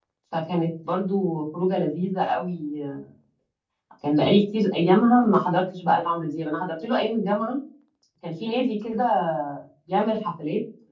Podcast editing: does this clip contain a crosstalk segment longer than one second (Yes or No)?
No